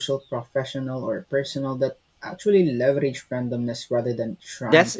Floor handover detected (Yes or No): Yes